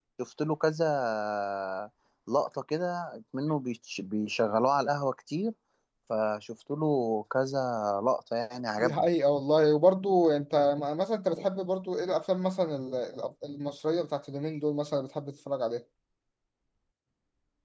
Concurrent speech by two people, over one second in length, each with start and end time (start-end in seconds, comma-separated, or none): none